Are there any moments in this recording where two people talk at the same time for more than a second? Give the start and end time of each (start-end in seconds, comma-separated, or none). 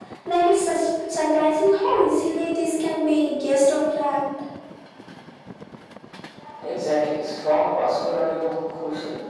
none